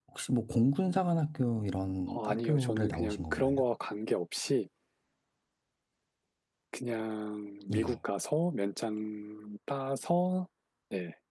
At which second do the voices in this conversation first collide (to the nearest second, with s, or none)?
2 s